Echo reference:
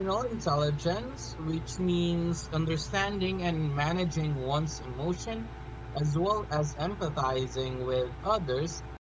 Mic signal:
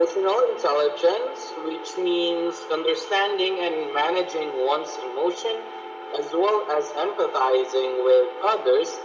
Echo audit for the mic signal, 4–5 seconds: echo only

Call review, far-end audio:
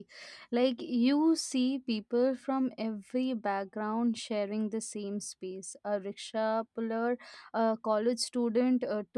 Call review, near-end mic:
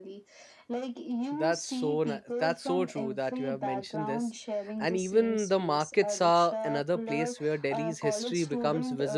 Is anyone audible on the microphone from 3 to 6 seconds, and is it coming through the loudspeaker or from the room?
both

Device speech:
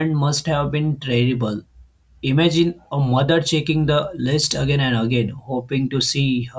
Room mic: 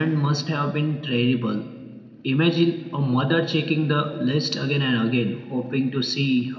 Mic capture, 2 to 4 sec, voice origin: echo only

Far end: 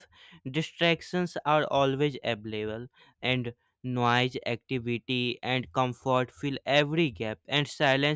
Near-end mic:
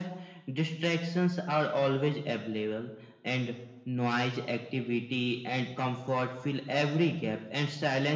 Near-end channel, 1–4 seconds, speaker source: echo only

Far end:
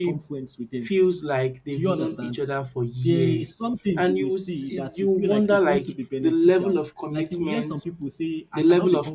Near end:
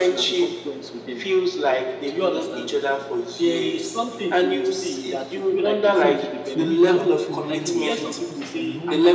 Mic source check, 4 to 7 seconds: both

